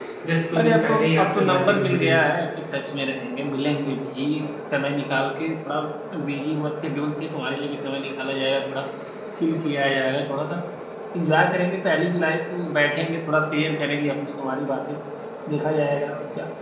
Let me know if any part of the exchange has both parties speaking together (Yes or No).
Yes